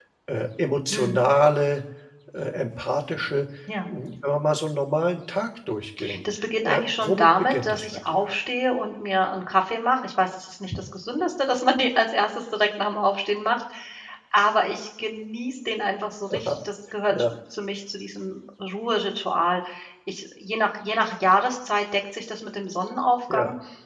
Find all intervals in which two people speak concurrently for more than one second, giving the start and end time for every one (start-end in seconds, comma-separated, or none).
6.6-8.2